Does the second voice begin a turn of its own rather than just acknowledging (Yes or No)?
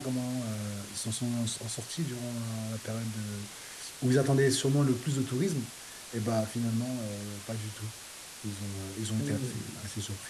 Yes